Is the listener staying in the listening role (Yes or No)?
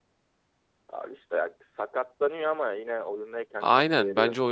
No